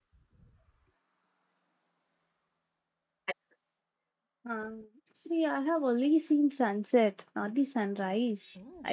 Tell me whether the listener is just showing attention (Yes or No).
No